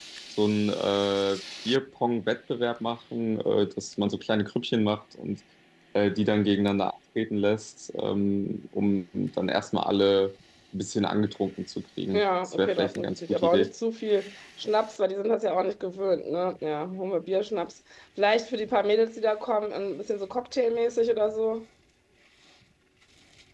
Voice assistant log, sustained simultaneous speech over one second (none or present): present